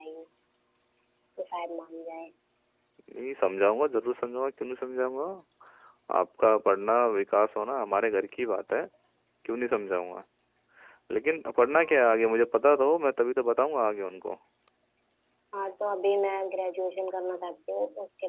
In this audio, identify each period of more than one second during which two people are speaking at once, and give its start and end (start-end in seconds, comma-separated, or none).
none